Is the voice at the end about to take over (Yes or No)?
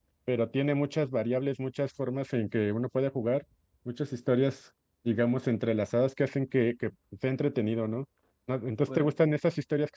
No